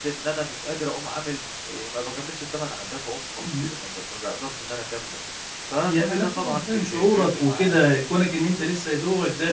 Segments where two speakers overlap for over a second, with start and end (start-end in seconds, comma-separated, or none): 5.8-7.8